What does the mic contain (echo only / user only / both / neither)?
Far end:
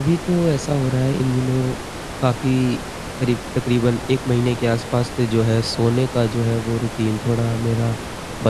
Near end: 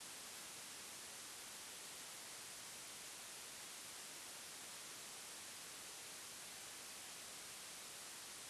neither